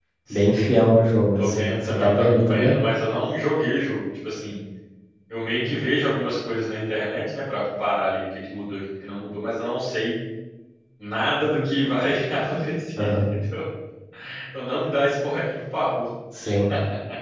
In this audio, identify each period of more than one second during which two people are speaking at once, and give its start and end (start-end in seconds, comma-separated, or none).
1.4-2.8